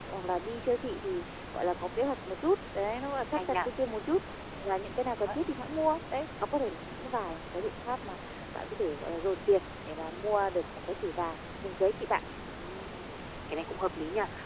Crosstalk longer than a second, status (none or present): none